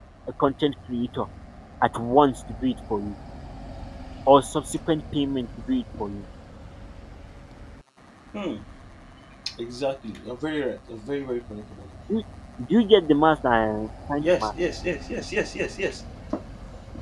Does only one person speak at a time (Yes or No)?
Yes